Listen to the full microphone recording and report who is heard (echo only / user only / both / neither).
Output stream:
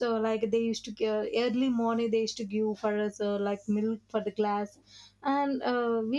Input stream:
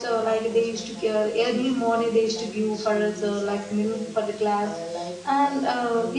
both